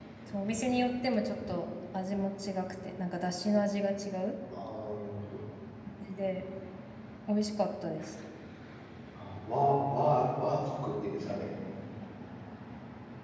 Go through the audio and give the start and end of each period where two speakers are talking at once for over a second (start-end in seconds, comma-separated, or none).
none